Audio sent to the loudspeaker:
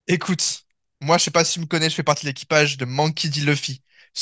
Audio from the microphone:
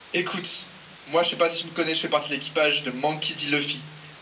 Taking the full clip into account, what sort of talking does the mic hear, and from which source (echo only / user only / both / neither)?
echo only